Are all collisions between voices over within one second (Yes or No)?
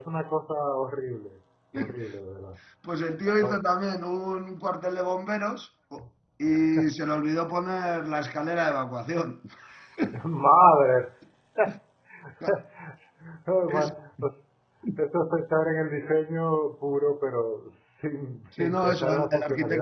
No